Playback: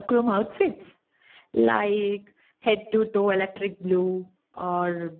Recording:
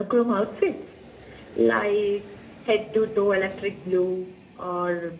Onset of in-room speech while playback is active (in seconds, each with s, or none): none